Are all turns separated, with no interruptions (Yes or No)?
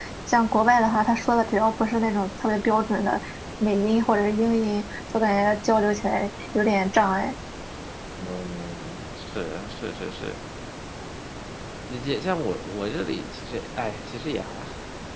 Yes